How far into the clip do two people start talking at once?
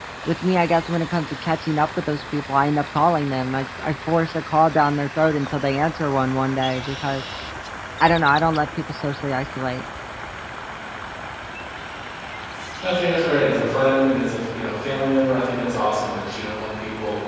none

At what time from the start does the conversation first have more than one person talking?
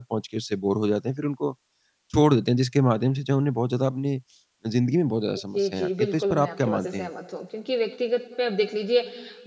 6 s

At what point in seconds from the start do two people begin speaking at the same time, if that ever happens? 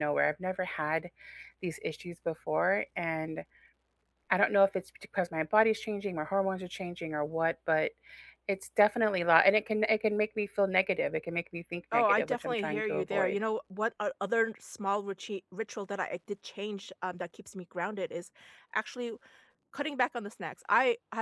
12 s

